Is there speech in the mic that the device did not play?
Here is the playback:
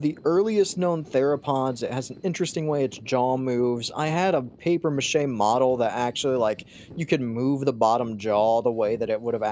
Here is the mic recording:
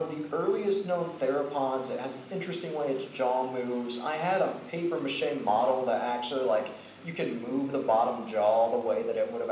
No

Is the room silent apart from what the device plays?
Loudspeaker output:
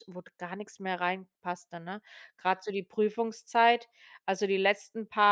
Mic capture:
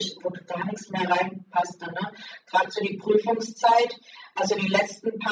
Yes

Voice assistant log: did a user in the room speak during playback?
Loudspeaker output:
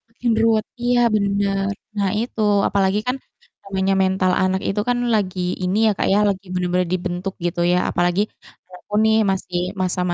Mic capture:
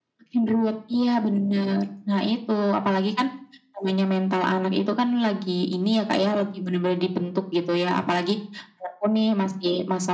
No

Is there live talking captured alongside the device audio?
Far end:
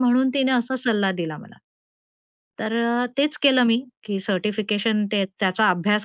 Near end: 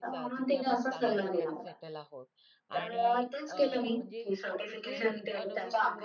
Yes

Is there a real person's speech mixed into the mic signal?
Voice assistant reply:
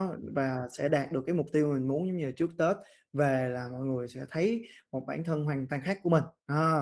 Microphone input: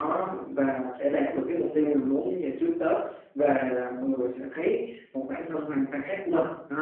No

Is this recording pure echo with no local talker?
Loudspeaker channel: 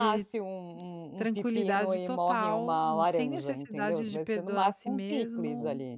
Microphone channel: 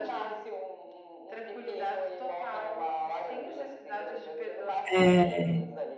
No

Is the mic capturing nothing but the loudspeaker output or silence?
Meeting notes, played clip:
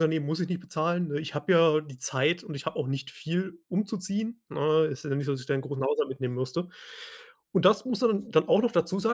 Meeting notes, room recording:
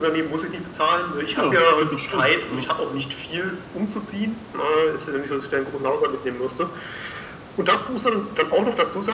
No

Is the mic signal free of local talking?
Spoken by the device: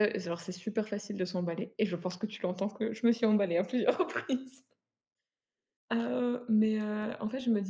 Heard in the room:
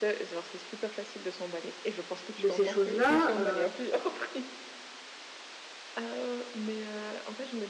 No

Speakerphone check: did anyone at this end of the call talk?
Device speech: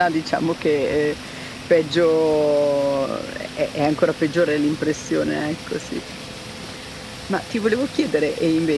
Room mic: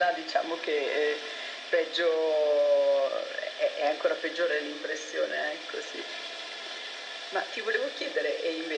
No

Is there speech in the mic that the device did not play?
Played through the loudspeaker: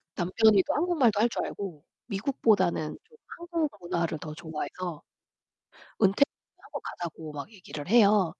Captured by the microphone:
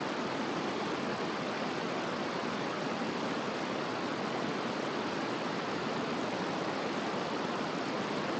No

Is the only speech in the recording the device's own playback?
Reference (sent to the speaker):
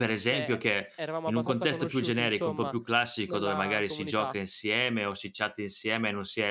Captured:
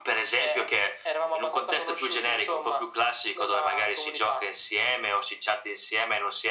Yes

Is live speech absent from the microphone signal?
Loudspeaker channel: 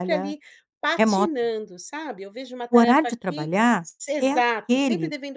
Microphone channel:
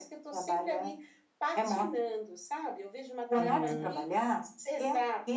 No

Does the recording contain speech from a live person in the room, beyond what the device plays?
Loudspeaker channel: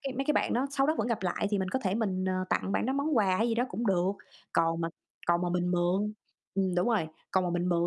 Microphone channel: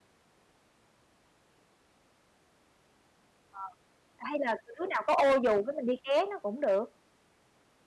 Yes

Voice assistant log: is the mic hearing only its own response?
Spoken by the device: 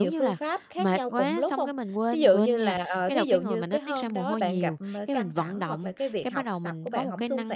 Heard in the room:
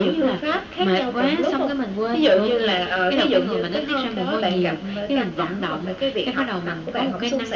Yes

